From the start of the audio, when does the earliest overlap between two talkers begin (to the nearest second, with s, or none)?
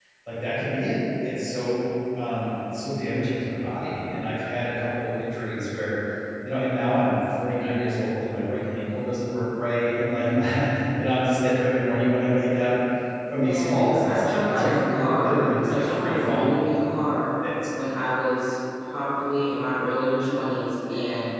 13 s